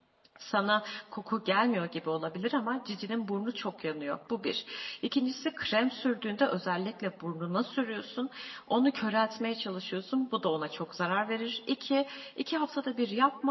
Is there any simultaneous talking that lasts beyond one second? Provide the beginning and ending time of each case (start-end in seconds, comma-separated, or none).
none